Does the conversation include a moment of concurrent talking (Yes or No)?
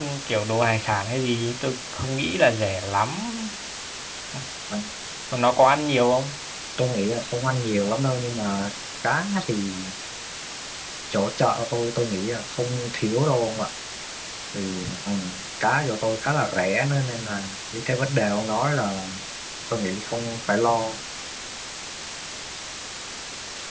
No